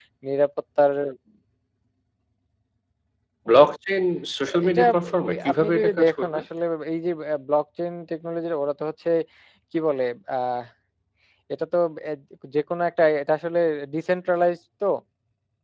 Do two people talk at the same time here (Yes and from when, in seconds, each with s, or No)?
Yes, from 4.5 s